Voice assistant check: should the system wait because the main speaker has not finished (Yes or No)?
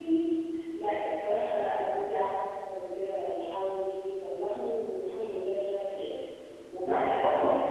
Yes